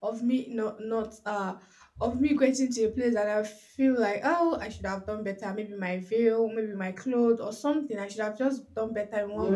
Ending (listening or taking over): taking over